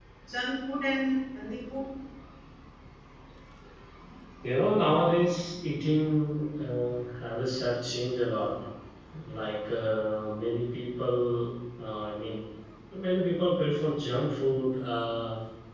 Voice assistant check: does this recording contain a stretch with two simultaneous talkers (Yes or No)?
No